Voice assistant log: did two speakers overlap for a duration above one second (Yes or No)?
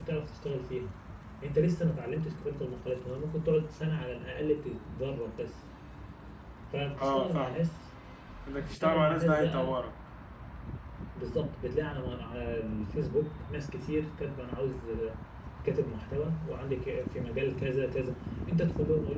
Yes